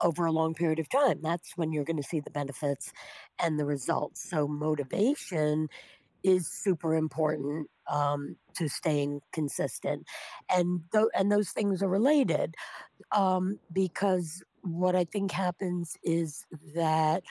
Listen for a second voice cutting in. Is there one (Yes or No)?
No